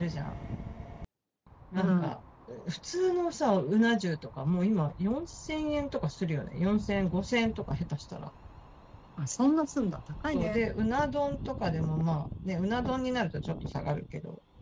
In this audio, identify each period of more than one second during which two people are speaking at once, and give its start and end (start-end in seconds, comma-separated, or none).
none